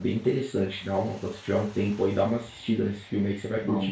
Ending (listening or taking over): taking over